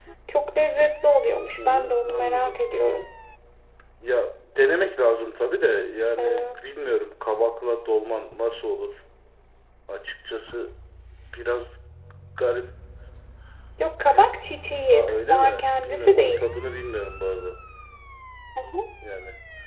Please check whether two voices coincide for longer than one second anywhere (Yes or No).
Yes